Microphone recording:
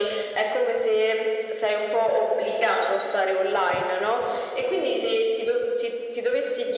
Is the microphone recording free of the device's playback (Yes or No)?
No